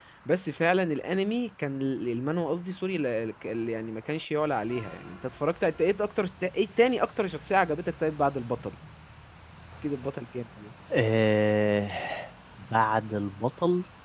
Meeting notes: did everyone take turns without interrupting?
Yes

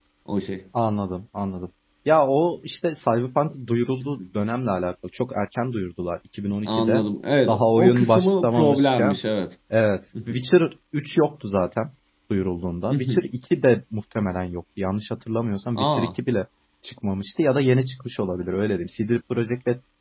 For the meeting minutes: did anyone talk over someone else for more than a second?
Yes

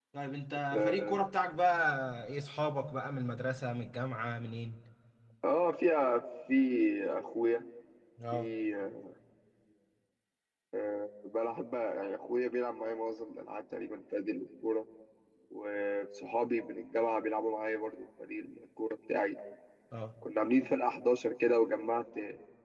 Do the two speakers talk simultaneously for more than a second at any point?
No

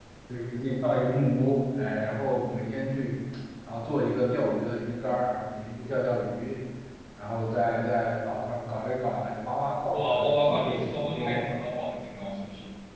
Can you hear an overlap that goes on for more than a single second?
Yes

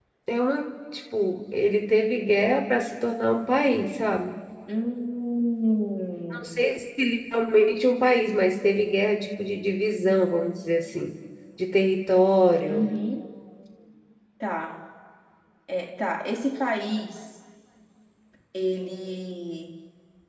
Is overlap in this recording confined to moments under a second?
Yes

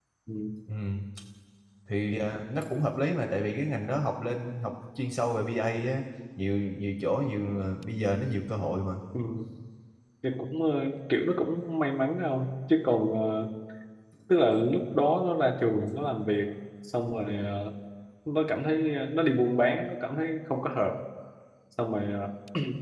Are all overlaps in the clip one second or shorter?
Yes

